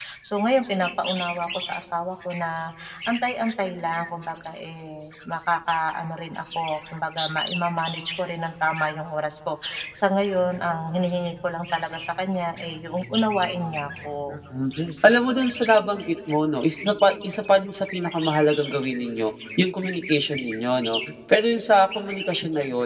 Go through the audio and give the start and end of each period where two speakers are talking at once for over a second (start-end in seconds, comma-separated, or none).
none